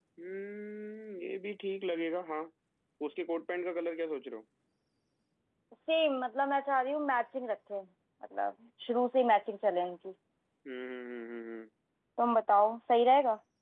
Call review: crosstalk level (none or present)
none